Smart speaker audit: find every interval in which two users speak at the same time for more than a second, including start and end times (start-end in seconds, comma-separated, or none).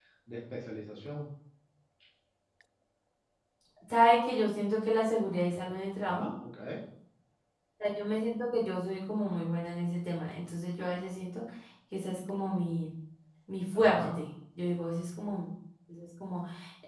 none